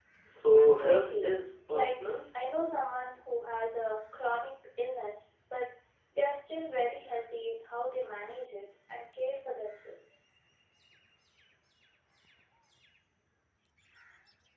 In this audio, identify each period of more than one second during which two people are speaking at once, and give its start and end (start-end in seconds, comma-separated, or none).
none